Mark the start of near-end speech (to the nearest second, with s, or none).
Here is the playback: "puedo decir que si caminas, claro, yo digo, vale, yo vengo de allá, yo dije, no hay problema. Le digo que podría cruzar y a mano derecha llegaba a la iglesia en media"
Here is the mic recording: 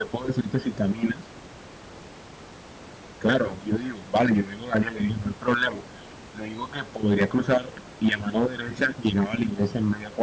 none